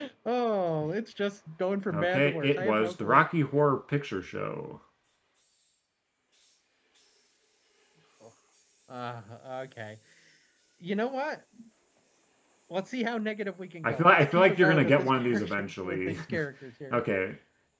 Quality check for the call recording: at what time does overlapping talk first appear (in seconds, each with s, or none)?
1.9 s